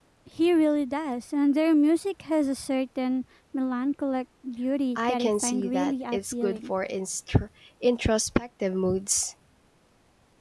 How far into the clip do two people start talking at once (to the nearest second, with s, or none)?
5 s